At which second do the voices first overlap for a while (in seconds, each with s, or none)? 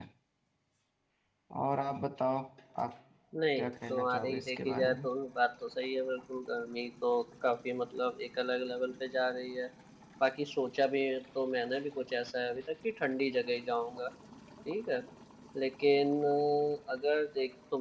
3.6 s